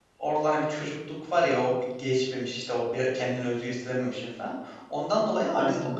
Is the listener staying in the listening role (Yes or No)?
Yes